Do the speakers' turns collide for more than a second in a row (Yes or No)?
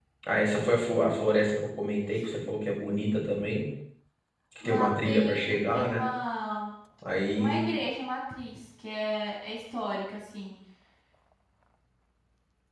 Yes